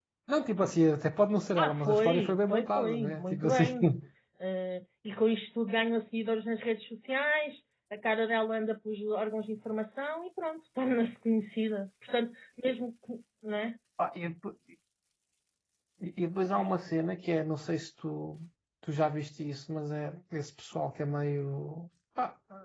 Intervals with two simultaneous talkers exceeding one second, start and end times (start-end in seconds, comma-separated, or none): 1.6-3.6